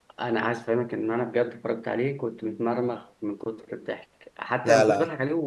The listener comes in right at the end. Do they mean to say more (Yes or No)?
No